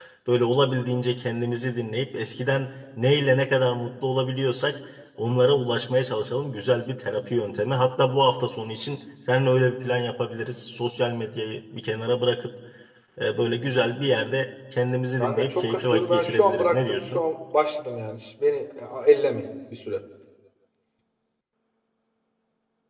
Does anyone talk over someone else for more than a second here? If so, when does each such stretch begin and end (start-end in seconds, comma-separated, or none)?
15.2-17.2